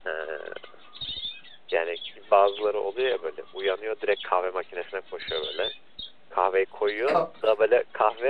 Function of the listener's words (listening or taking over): listening